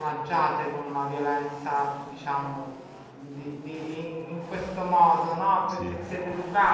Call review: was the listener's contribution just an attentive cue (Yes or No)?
Yes